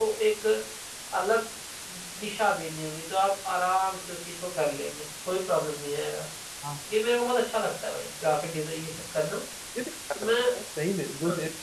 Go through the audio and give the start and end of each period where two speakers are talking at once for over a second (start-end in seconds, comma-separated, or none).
none